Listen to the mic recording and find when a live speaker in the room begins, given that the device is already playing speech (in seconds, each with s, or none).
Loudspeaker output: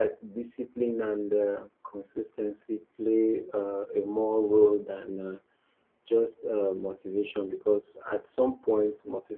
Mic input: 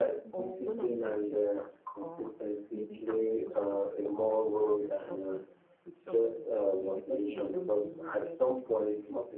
0.3 s